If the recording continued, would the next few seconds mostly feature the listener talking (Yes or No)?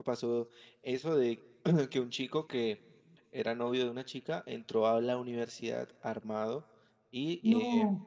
No